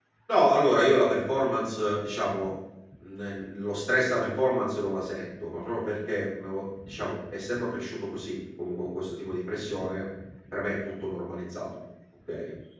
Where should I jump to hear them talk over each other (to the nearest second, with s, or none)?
none